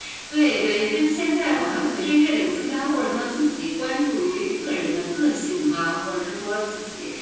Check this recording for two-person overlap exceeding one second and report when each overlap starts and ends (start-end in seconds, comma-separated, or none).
none